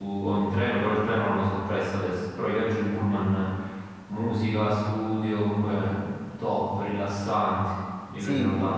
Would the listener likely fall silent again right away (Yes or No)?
No